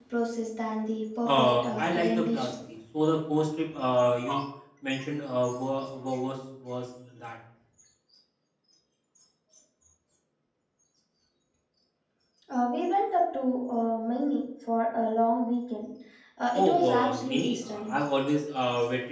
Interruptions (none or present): present